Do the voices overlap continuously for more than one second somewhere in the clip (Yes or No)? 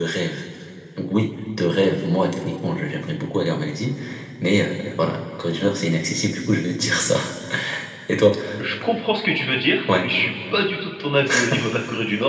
No